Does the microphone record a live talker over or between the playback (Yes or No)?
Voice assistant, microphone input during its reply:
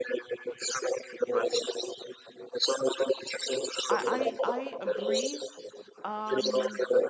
Yes